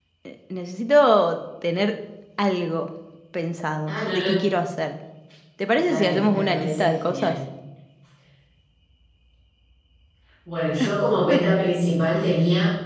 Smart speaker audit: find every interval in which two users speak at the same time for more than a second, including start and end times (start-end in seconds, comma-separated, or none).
5.8-7.3